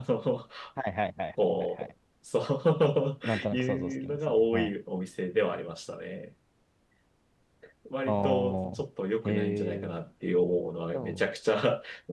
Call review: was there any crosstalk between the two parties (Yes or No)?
Yes